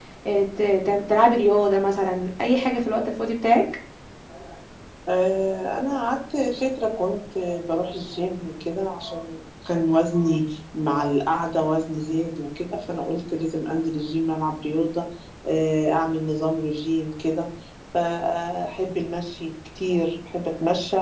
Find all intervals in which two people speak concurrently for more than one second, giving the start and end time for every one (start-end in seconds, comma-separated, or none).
none